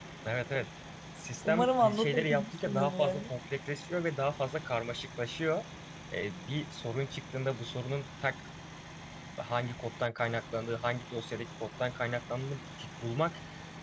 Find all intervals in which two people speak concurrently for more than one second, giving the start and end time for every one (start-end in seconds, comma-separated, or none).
1.4-3.2